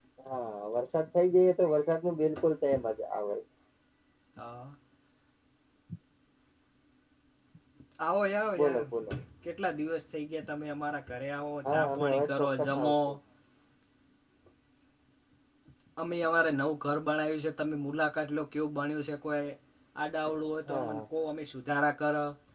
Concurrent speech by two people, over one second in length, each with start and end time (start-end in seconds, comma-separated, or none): 11.7-12.9